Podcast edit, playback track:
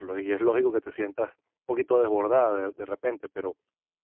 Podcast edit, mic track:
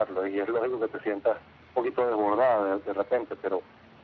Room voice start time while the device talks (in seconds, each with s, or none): none